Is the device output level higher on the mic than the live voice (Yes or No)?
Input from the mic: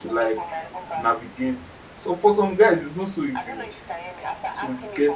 No